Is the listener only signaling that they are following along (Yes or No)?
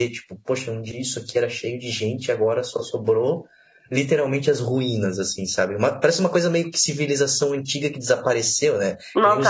No